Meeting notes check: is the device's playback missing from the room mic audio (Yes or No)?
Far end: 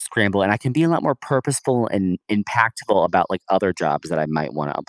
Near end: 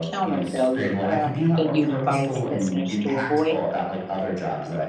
No